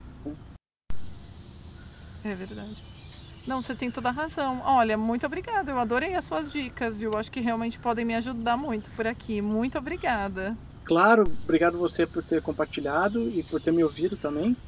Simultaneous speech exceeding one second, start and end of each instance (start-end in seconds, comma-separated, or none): none